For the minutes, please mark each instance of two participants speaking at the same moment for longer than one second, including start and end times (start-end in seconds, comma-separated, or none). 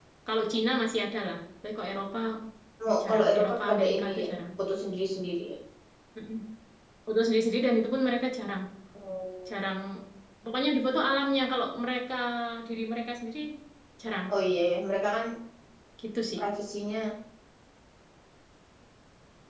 3.1-4.3